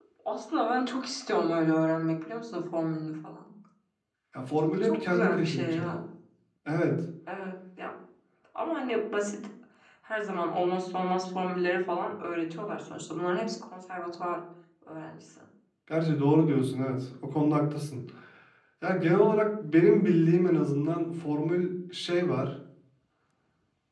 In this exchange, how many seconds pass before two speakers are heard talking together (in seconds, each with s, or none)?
4.7 s